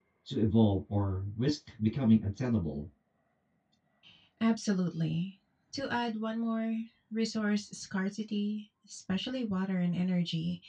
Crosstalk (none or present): none